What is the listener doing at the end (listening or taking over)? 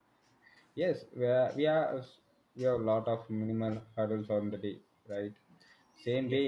listening